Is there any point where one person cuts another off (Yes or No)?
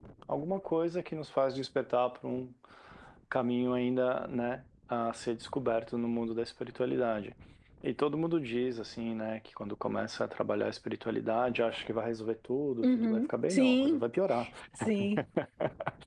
Yes